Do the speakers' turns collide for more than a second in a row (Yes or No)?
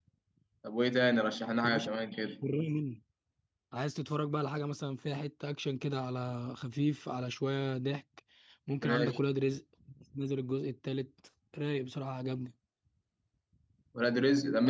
No